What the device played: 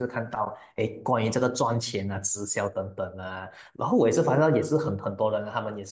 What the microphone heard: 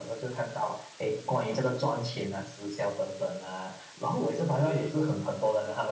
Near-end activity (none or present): present